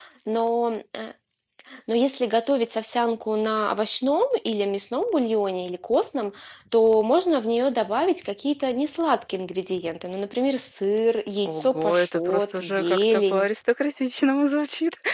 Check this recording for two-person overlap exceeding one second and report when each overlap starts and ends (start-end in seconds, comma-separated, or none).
11.4-13.5